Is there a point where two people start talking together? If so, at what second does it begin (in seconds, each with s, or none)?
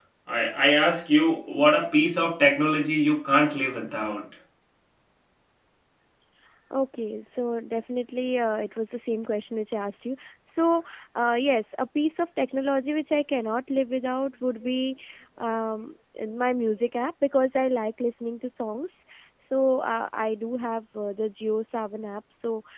none